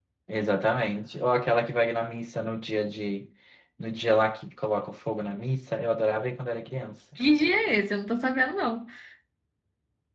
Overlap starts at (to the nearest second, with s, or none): none